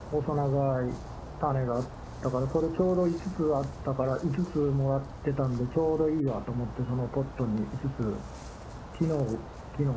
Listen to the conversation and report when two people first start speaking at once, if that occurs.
none

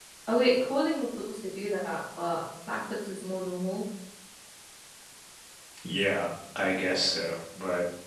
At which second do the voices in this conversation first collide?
none

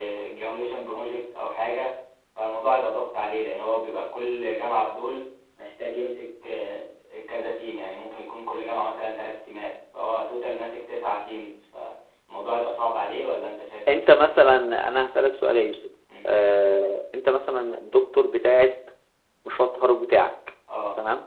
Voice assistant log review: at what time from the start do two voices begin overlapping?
none

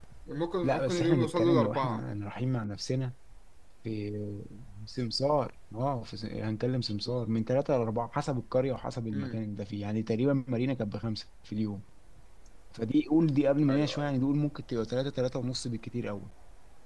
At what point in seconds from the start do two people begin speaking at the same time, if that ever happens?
0.6 s

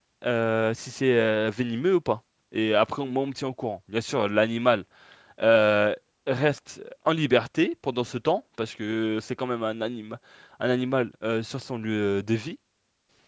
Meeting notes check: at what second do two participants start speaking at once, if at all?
none

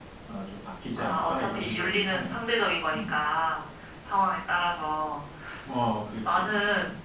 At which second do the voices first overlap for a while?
1.0 s

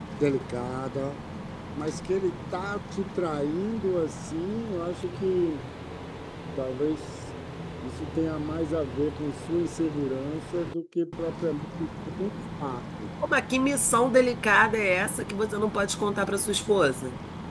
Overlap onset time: none

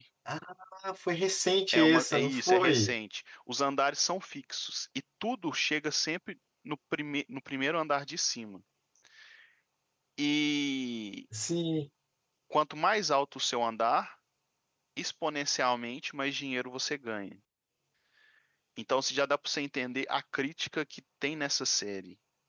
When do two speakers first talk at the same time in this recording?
1.7 s

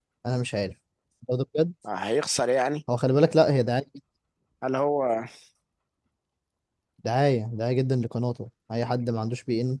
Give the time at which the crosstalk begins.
none

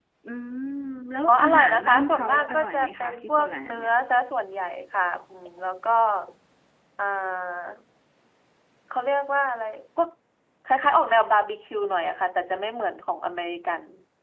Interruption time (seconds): 1.3 s

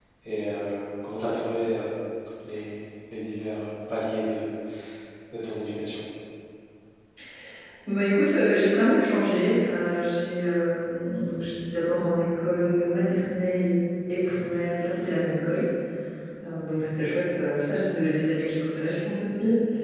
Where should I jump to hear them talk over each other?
none

